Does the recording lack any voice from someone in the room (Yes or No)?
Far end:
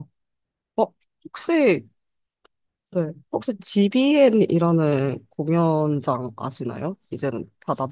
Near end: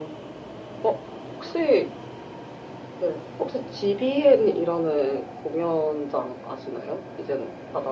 Yes